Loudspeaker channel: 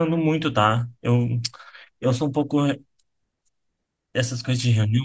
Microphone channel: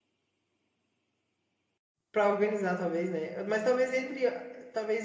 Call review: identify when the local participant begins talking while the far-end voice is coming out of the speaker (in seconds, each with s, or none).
2.1 s